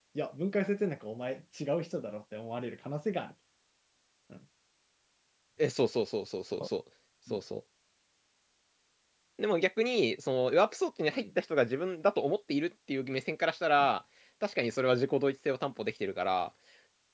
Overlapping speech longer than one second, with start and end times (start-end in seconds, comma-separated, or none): none